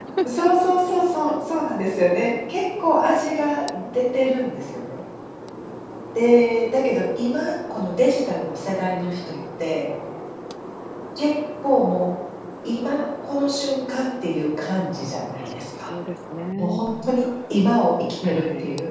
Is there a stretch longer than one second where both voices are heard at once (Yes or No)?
No